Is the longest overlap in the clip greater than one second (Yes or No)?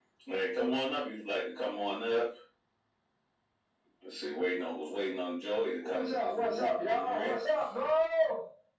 Yes